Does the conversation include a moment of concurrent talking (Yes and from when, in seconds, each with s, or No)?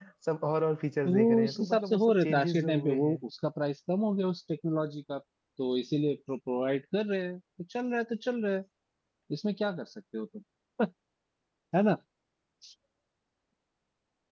Yes, from 1.0 s